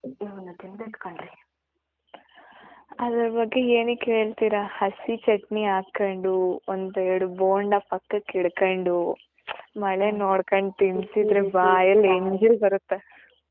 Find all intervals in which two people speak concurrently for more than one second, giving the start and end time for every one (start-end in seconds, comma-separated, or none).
11.0-12.4